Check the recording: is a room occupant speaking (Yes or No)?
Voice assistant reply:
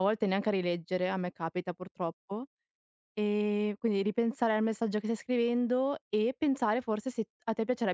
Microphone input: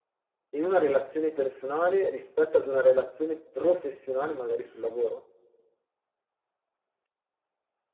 Yes